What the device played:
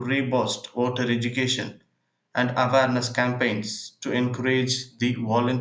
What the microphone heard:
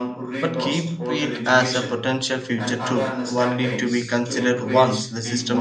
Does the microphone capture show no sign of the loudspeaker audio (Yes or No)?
No